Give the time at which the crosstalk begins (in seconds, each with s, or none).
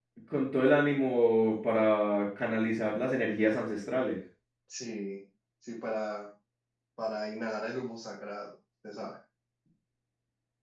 none